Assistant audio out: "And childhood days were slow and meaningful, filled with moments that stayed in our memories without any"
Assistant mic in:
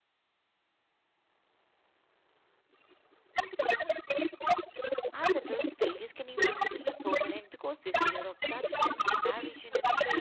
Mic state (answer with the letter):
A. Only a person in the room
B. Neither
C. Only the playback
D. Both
D